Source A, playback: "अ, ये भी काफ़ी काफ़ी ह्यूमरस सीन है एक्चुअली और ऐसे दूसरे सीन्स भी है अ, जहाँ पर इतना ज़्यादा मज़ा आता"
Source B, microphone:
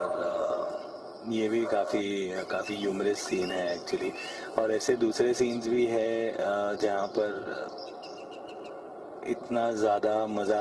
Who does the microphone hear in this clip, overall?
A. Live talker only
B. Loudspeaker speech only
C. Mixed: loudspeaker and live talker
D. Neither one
B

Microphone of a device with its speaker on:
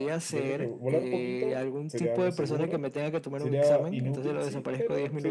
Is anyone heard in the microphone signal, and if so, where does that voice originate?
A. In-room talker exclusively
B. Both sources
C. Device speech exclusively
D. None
B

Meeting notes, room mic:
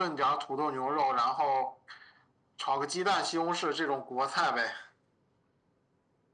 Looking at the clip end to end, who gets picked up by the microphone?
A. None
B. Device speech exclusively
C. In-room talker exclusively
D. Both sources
B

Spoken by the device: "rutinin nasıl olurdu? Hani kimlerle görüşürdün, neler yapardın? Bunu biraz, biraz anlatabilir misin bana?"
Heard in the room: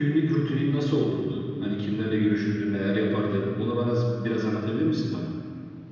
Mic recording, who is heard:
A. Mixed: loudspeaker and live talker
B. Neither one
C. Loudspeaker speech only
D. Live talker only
C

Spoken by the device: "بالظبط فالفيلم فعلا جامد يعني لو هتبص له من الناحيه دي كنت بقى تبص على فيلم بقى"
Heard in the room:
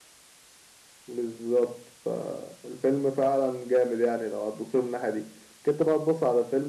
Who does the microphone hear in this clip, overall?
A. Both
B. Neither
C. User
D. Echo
D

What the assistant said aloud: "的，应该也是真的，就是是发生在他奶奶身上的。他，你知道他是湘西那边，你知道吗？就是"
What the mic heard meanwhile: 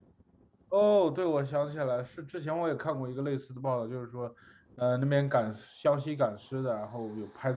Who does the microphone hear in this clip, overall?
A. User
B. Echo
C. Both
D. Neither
A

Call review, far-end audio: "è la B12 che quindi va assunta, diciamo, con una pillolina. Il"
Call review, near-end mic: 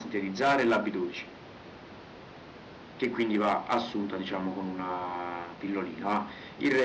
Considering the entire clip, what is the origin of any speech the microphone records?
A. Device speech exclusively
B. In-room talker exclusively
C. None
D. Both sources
A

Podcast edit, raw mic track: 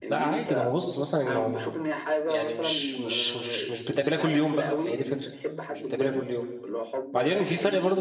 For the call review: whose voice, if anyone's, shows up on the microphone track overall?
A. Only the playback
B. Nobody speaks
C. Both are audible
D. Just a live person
C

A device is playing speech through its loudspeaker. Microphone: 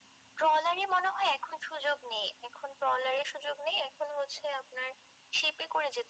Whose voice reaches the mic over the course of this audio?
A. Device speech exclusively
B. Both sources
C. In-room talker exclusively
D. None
A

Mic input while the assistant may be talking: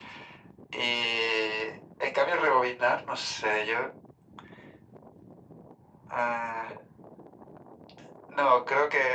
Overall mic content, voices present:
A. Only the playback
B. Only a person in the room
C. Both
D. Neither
A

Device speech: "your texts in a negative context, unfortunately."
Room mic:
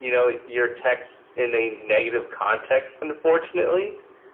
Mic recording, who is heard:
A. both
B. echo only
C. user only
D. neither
B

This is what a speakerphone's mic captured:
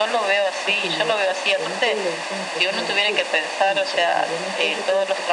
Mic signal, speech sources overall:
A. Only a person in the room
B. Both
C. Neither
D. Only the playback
B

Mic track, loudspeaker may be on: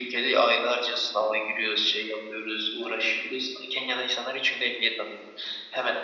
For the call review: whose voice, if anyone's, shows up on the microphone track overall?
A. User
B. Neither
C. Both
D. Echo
D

